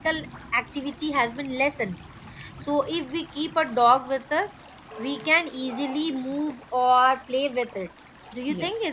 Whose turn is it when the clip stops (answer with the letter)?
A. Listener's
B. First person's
A